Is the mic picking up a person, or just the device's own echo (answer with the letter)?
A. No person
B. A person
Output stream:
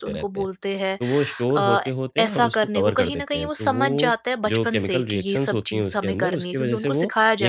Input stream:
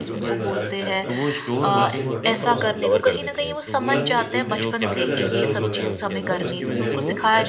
B